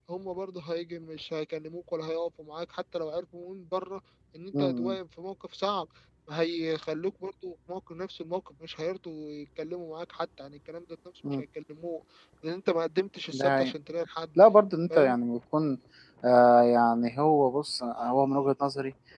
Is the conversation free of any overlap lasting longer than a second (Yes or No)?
Yes